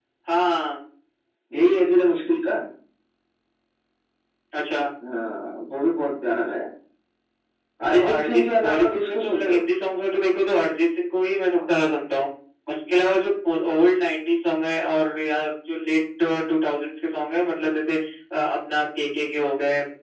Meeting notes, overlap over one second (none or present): present